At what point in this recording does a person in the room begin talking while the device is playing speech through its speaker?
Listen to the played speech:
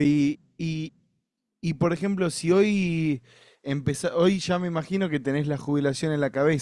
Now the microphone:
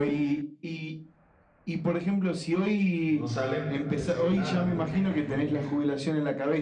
3.1 s

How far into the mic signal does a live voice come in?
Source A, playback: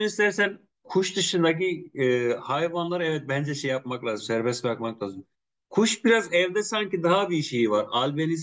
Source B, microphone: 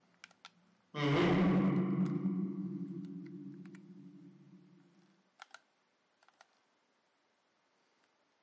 0.9 s

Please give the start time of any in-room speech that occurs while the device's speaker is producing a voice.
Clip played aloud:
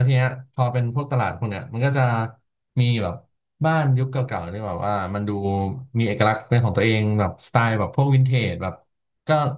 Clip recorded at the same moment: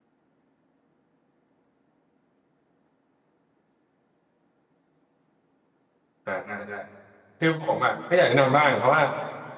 6.2 s

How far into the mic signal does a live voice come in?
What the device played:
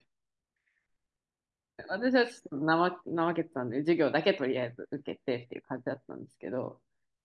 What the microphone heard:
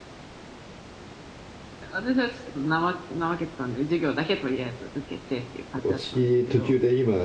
5.8 s

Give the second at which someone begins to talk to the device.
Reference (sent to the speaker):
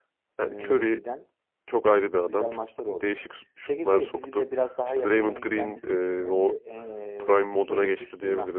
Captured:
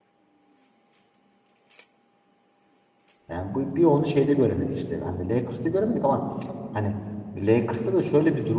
3.3 s

